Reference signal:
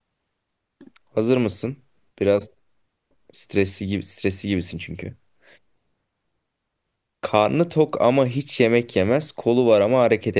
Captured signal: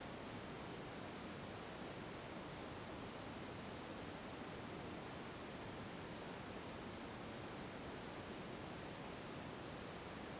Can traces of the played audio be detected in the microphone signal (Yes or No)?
No